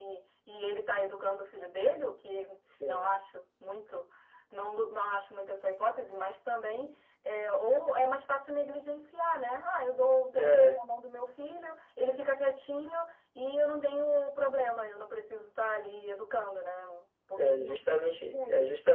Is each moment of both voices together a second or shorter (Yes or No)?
No